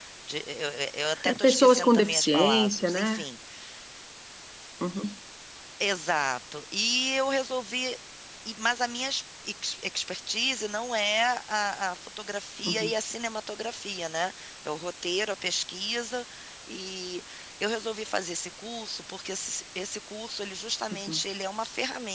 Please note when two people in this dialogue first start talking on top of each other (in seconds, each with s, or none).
1.2 s